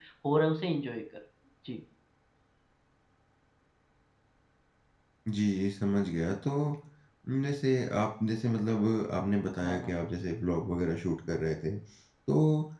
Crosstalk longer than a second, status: none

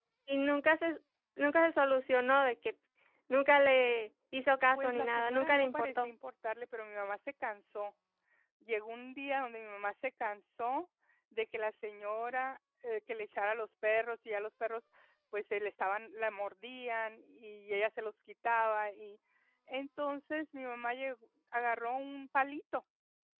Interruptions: present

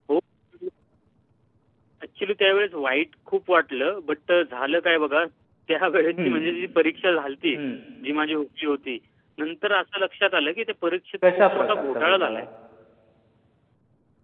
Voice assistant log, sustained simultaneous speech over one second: present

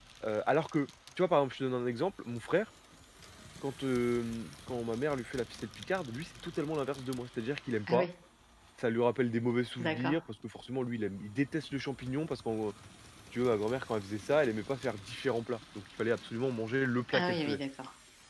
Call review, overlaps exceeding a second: none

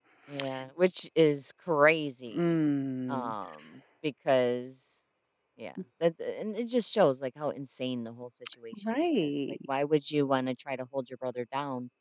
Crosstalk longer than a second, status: none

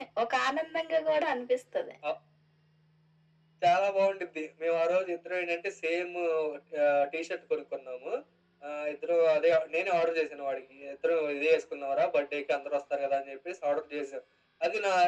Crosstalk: none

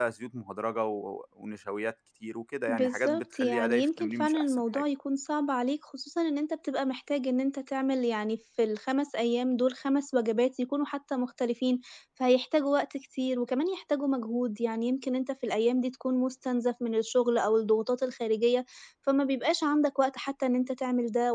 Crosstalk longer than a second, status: present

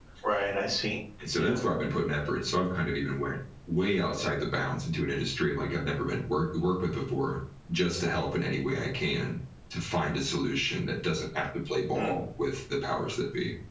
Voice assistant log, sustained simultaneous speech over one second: none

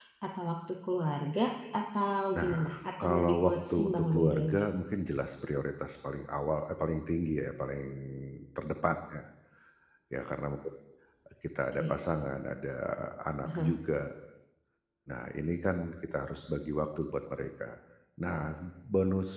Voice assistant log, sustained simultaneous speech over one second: present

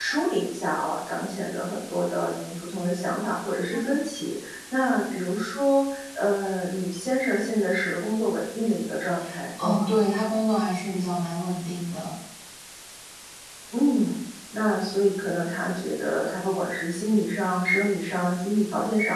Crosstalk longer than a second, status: none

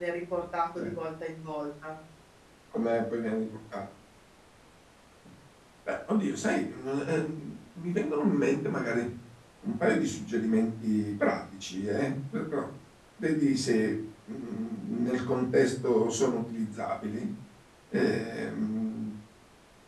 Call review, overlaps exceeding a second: none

